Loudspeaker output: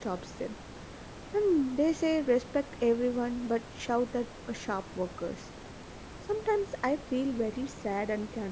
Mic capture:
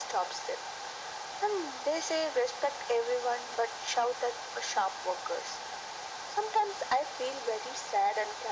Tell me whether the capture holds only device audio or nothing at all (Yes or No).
Yes